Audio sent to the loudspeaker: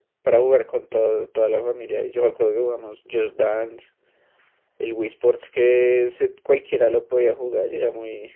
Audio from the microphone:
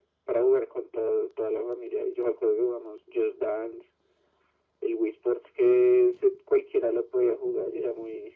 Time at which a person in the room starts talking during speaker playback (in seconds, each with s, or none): none